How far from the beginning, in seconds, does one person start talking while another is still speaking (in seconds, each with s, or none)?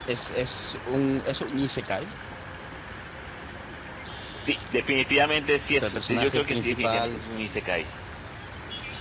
5.7 s